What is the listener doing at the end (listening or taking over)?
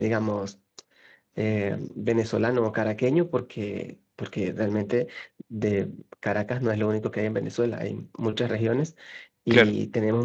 listening